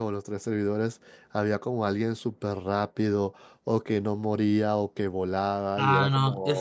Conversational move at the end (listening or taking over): taking over